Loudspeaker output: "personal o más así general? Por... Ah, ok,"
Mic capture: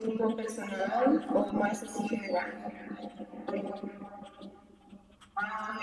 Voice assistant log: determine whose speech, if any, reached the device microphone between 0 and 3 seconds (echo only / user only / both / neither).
echo only